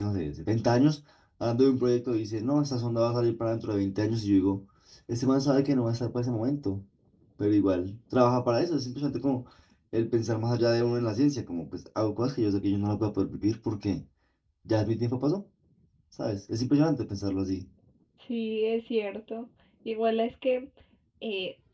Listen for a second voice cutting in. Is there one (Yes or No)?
No